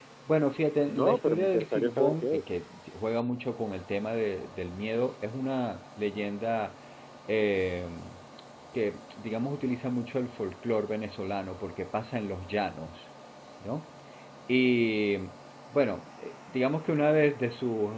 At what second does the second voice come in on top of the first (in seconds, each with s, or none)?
0.9 s